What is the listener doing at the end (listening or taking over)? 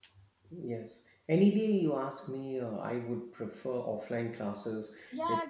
taking over